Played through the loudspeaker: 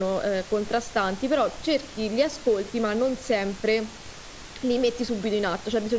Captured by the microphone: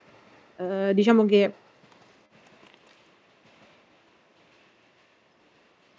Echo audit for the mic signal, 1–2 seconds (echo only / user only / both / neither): user only